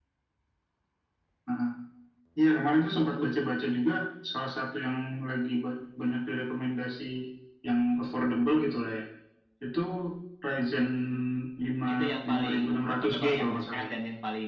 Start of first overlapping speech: 11.9 s

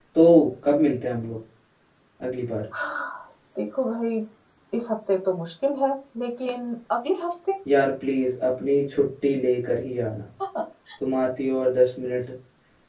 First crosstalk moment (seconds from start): none

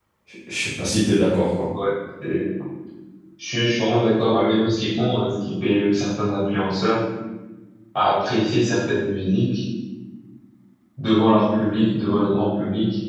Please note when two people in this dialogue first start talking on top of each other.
none

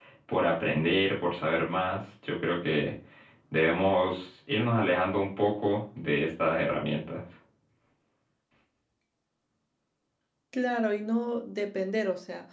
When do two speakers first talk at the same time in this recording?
none

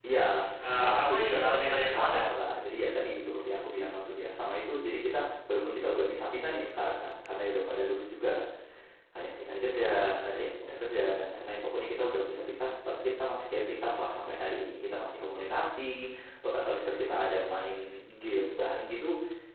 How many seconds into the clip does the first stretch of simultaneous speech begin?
0.7 s

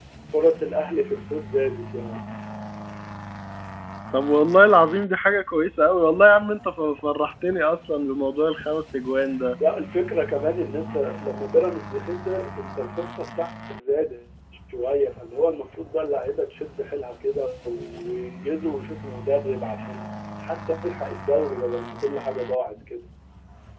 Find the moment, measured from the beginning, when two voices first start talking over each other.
none

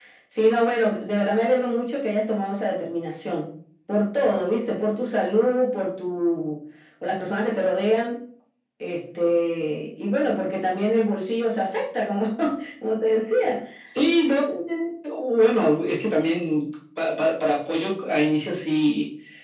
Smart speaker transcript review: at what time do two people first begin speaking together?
none

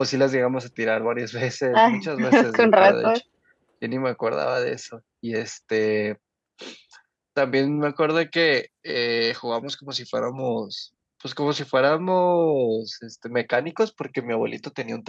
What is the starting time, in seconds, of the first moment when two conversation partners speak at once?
1.7 s

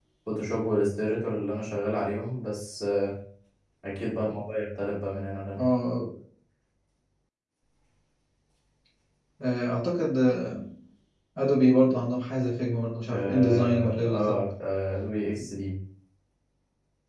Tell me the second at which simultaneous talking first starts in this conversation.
13.1 s

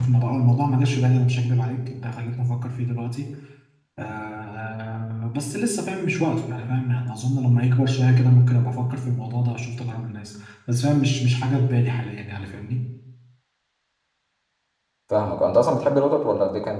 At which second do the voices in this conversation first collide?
none

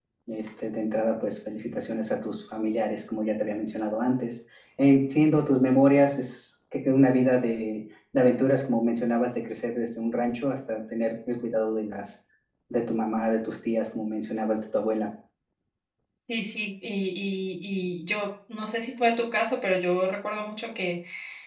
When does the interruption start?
none

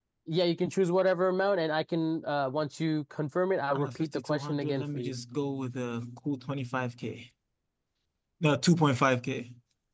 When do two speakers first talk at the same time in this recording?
3.7 s

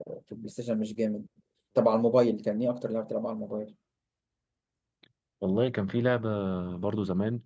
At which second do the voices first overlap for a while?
none

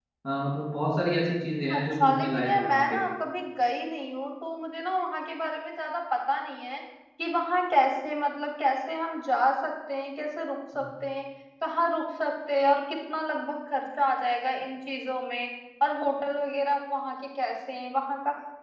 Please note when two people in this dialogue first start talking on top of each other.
1.7 s

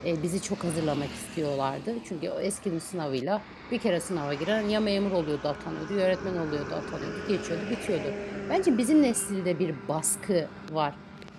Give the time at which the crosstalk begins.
none

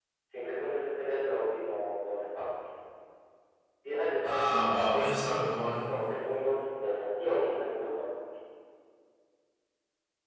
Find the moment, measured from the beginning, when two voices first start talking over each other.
4.2 s

